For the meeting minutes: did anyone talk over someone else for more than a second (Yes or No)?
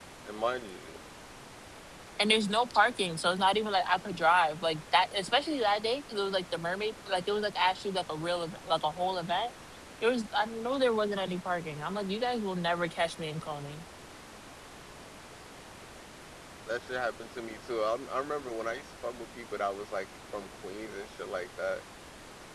No